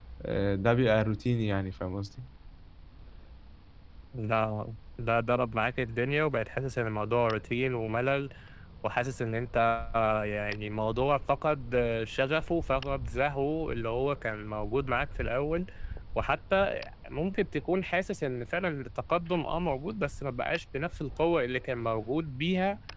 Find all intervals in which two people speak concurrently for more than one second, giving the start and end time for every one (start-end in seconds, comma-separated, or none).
none